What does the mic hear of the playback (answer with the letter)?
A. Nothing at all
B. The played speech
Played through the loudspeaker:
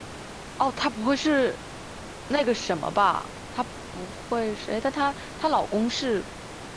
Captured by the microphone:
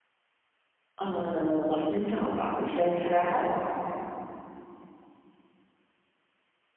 A